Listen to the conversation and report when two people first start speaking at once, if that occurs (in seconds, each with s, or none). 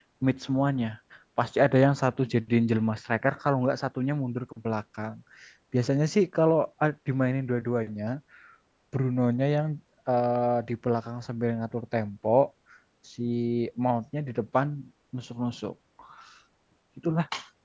none